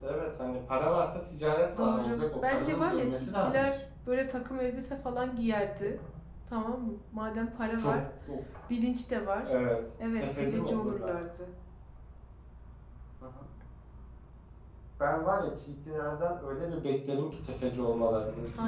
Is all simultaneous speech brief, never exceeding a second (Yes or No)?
No